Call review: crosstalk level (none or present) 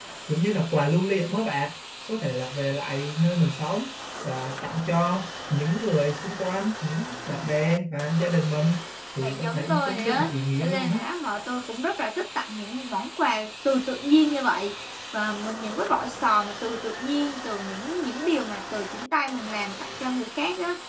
present